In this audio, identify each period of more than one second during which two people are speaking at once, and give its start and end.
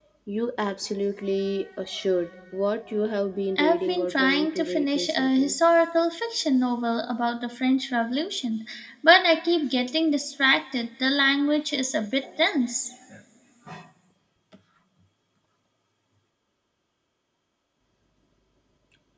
3.6-5.5

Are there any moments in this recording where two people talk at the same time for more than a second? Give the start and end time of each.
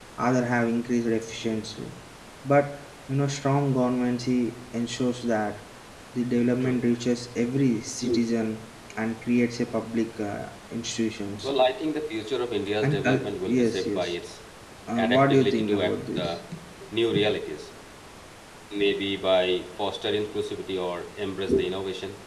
12.8-14.0, 15.0-16.3

